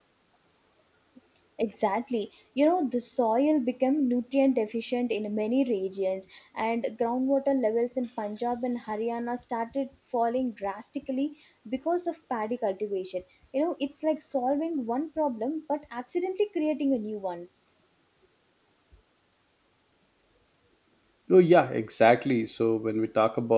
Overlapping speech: No

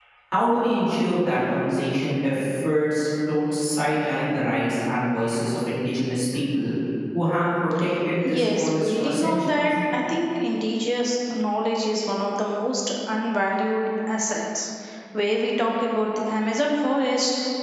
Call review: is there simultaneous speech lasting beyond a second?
Yes, from 8.2 s

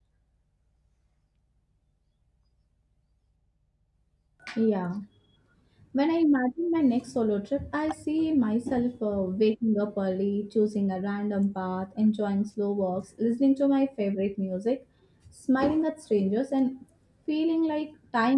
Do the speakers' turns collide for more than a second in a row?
No

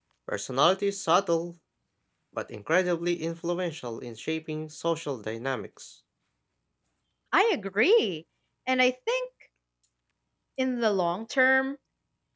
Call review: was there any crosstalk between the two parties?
No

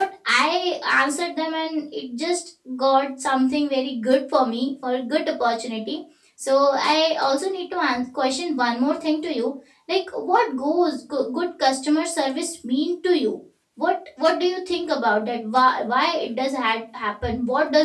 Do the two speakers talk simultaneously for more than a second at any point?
No

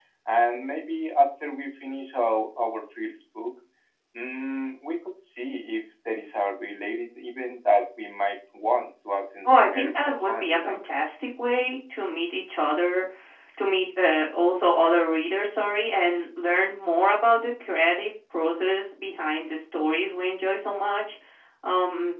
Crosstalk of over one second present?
Yes, from 9.4 s

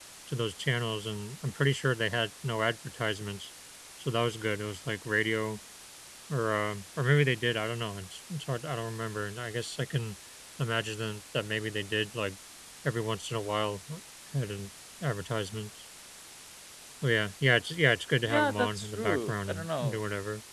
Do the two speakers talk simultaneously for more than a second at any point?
Yes, from 18.3 s

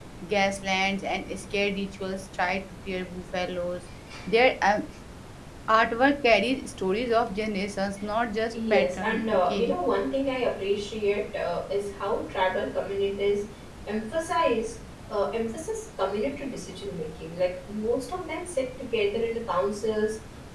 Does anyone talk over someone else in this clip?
Yes, from 8.5 s

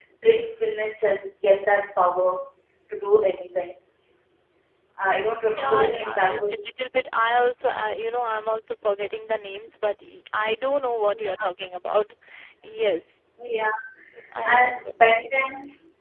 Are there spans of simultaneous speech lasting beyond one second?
Yes, from 5.4 s

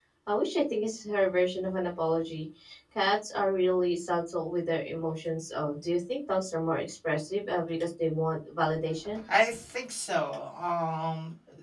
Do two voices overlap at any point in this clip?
No

